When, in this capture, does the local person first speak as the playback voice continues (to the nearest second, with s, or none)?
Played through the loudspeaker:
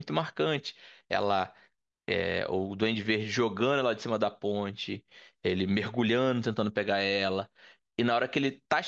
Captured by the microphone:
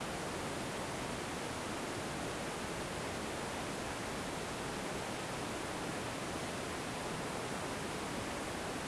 none